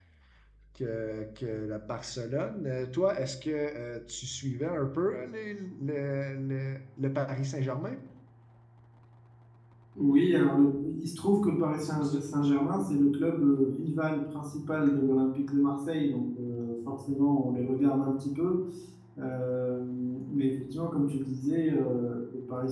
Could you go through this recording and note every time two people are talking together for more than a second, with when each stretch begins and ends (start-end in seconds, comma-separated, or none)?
none